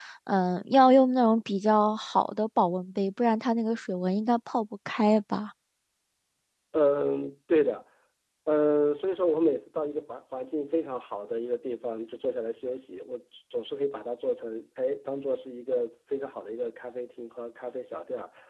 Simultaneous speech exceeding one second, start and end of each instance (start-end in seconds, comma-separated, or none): none